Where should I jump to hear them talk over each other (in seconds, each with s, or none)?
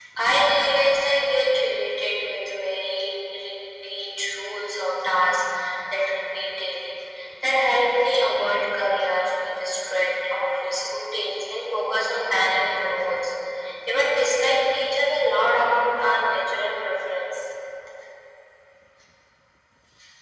none